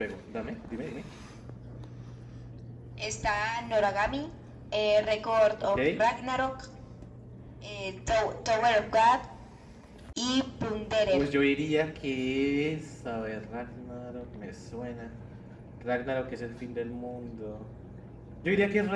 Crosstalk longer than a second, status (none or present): none